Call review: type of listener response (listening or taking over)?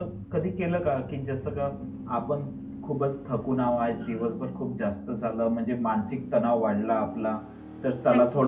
listening